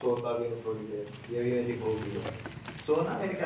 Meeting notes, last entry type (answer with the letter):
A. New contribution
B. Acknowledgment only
B